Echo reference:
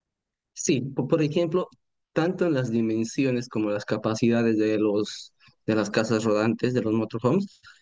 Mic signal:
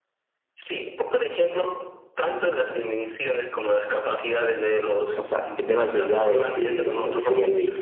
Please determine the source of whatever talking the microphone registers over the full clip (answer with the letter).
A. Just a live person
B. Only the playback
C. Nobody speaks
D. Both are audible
D